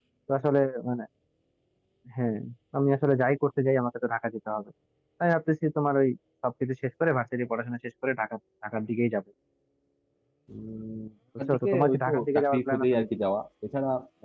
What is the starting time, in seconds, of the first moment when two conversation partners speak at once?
11 s

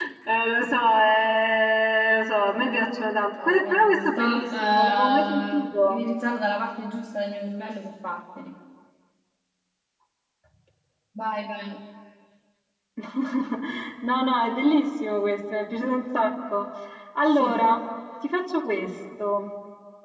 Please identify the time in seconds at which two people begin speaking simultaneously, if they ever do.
3 s

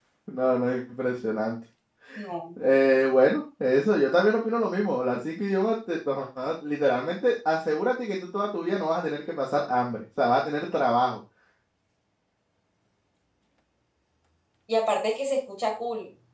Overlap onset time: none

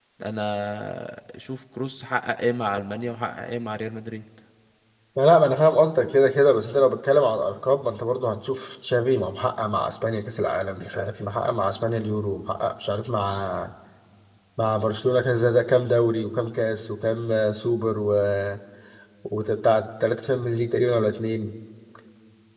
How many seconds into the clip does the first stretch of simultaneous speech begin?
none

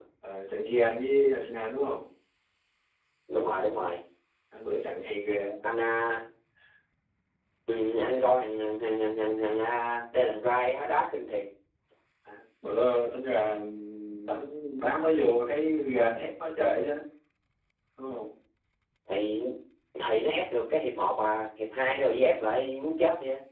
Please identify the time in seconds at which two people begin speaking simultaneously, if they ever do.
none

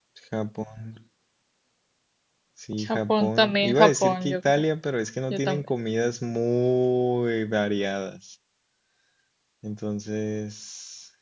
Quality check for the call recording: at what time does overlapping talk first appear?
3 s

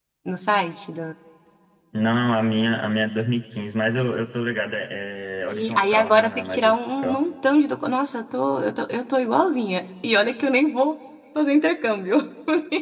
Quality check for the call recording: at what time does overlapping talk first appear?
5 s

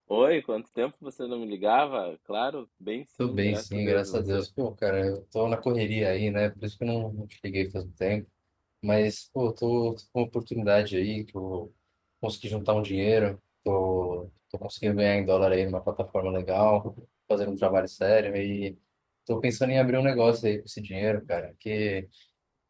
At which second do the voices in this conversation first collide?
3 s

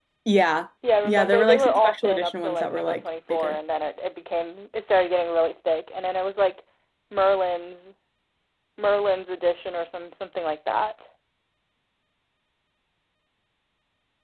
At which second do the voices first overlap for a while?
1 s

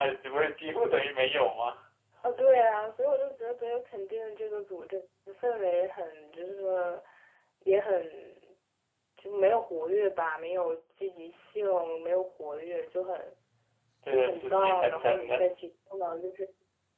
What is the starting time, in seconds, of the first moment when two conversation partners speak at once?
14 s

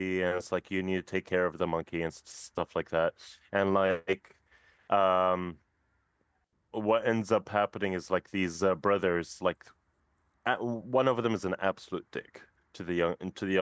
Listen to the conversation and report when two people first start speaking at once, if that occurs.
none

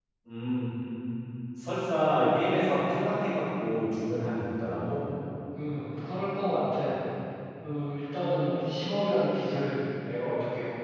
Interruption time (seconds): none

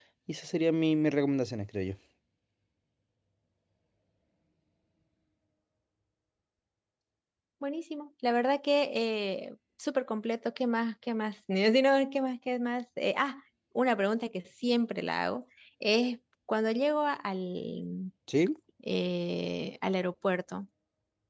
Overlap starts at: none

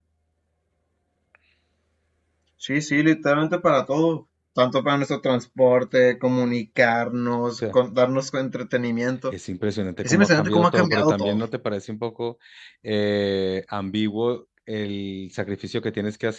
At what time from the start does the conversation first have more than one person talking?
10 s

